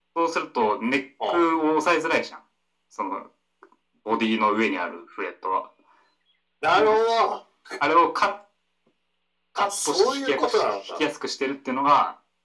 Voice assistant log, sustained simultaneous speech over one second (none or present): present